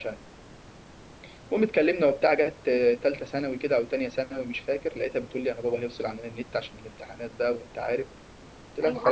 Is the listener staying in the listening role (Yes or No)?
No